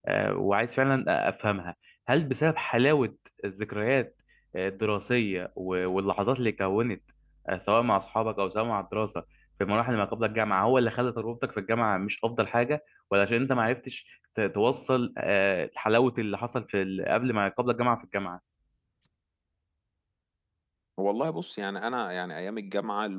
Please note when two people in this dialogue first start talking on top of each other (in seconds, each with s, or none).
none